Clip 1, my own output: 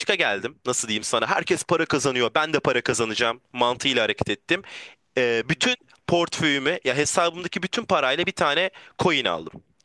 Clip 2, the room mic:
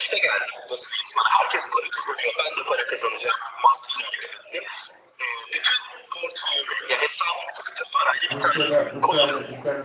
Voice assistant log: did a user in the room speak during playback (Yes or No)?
Yes